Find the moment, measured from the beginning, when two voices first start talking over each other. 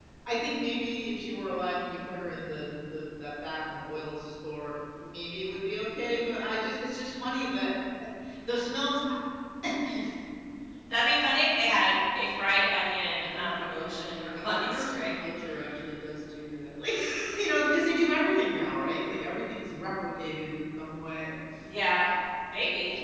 13.2 s

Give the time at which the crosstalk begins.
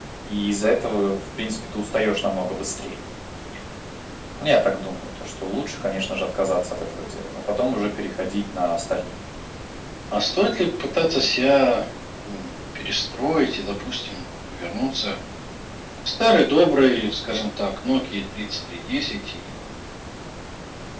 none

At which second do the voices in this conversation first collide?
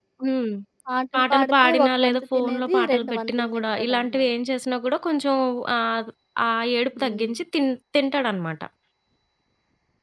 1.1 s

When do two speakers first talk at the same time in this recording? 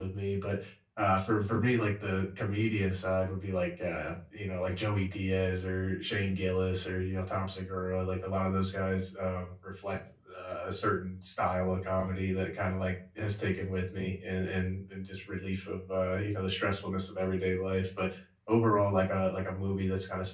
none

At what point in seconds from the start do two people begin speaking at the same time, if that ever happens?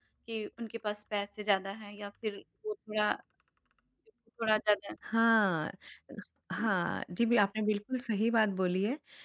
none

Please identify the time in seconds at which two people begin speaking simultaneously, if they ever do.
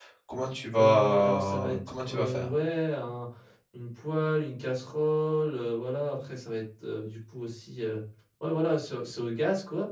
0.8 s

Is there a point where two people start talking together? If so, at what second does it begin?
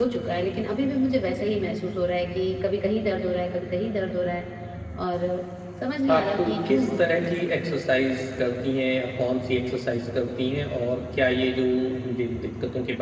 6.1 s

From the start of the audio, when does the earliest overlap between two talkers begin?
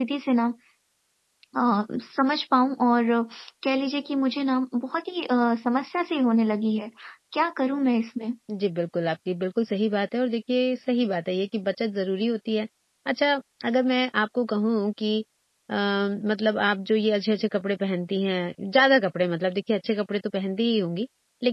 none

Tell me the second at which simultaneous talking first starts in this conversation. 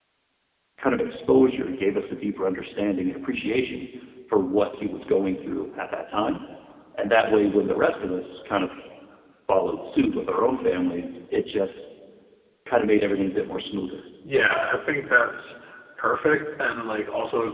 none

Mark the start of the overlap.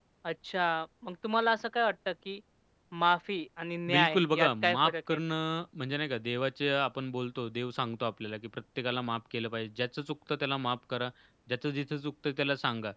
3.9 s

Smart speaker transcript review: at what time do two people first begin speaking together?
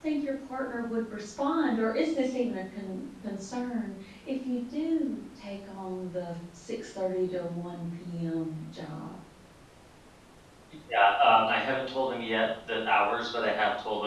none

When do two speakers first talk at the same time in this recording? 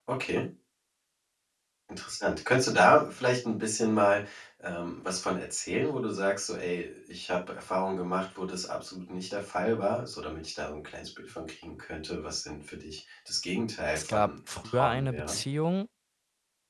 14.0 s

